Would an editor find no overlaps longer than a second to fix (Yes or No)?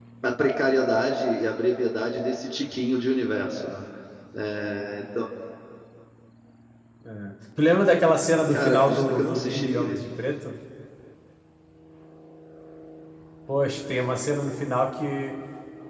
No